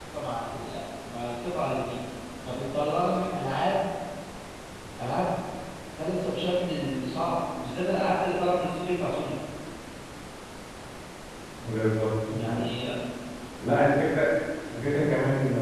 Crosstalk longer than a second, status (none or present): none